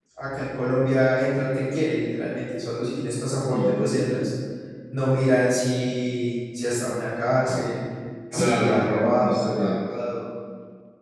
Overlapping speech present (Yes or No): Yes